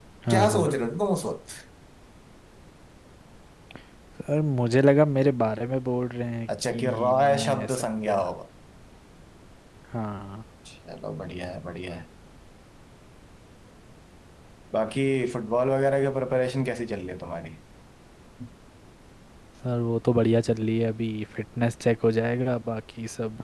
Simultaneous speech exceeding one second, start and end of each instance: 6.7-8.2

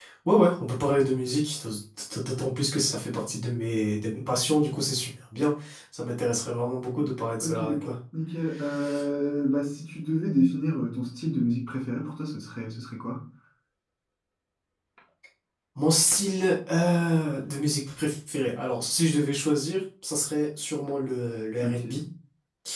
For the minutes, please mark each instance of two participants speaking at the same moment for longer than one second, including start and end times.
none

